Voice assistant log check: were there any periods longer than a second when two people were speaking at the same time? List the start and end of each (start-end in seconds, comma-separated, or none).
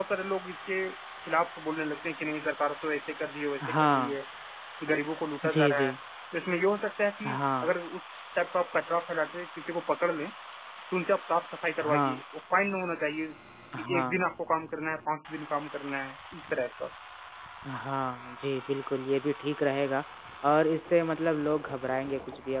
none